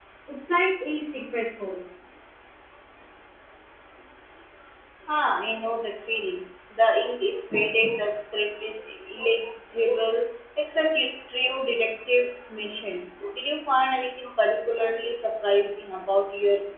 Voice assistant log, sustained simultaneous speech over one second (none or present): none